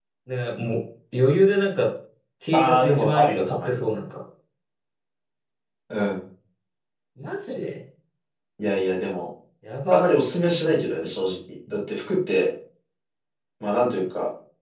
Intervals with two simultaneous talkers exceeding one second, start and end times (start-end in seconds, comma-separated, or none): 2.5-3.8